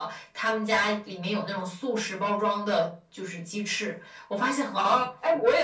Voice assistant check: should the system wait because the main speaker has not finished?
No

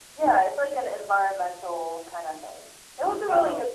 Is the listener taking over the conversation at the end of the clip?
No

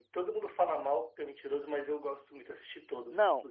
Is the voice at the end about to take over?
Yes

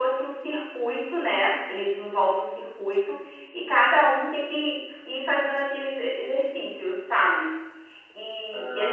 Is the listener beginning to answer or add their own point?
Yes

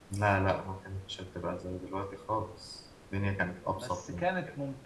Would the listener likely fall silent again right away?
No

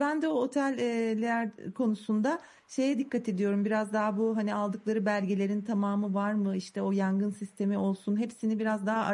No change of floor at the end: Yes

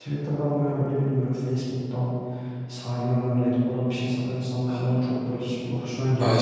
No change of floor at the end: No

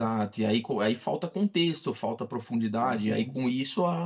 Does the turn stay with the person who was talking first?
Yes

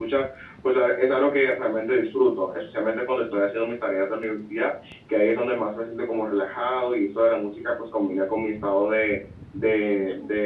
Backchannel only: Yes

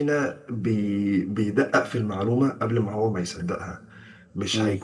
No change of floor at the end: Yes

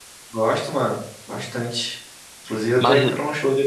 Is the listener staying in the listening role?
Yes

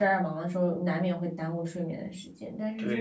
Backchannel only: Yes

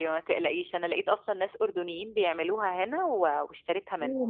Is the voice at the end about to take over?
Yes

